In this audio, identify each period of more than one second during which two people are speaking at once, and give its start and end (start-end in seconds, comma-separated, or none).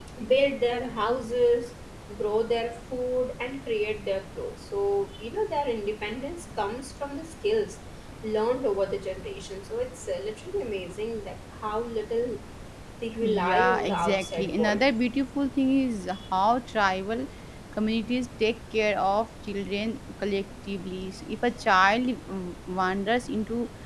13.2-14.8